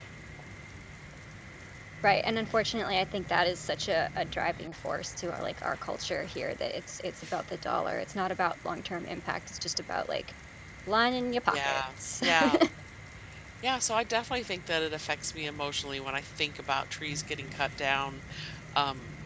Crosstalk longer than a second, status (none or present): none